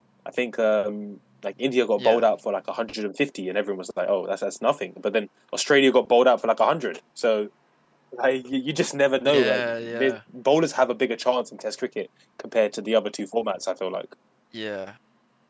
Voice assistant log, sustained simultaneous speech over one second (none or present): none